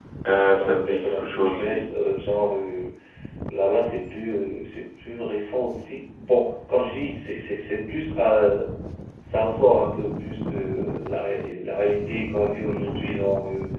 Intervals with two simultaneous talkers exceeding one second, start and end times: 0.5-1.9

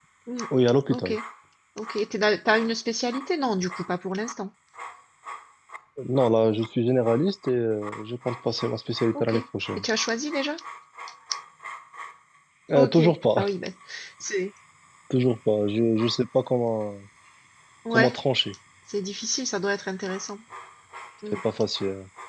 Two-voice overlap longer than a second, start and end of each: none

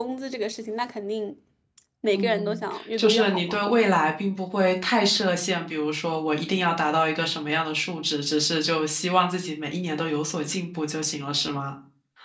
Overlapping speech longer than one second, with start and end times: 2.1-3.6

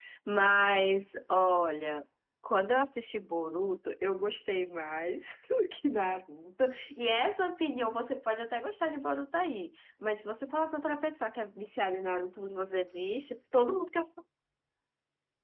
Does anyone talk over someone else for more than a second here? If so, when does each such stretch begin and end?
none

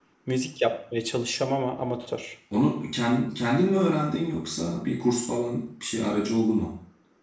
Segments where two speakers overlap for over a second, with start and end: none

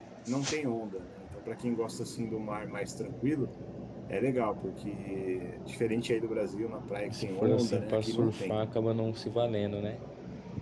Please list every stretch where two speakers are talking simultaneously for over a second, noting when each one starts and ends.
7.1-8.6

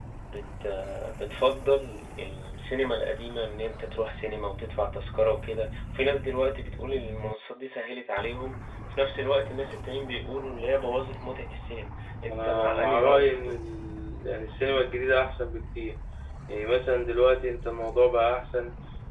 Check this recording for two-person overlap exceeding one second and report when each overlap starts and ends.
12.3-13.6

